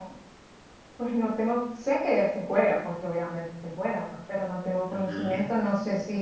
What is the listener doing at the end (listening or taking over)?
listening